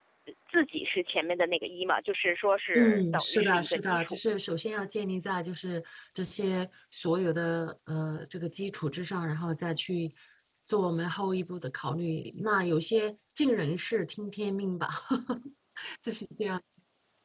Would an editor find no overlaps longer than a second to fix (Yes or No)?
No